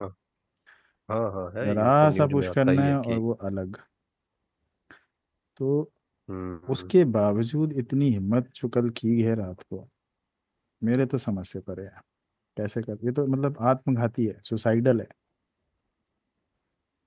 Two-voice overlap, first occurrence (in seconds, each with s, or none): 1.7 s